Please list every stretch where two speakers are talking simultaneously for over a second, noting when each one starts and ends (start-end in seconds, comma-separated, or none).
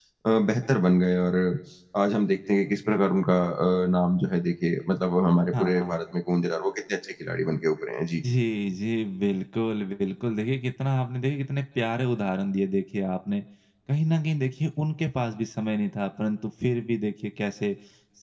none